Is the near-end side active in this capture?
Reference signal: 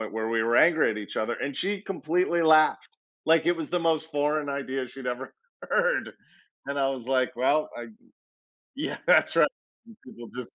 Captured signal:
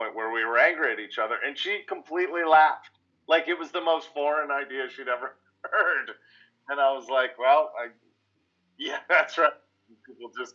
No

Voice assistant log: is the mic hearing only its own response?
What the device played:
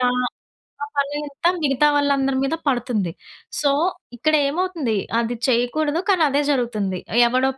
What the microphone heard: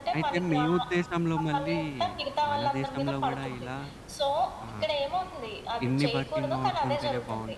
No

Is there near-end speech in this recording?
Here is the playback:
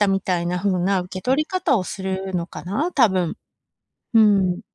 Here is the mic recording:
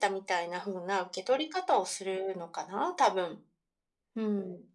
No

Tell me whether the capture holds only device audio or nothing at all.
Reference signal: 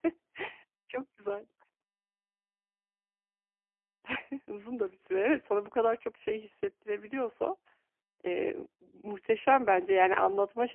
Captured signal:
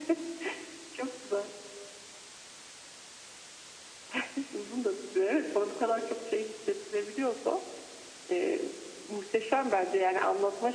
Yes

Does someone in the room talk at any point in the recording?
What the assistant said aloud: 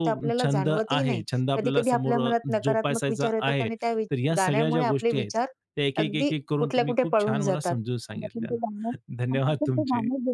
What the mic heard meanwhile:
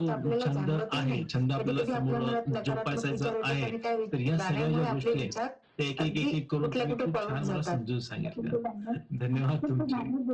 No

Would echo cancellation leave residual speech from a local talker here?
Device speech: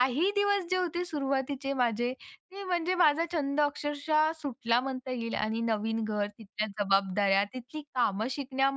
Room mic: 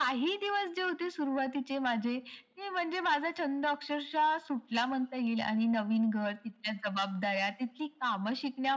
No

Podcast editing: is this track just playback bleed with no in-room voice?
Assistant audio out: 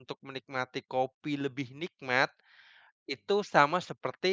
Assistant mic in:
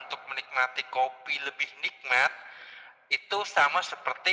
Yes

